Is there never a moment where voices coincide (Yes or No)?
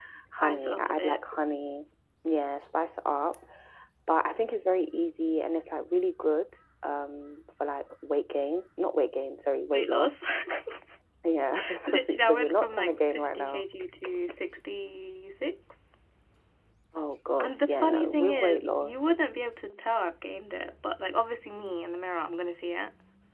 No